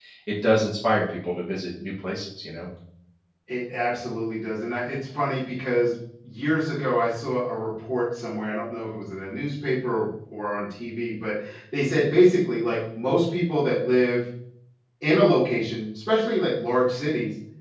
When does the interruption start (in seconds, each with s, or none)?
none